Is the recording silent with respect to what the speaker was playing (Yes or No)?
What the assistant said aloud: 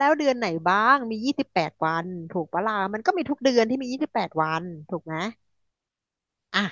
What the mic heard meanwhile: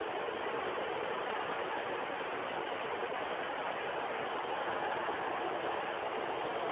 Yes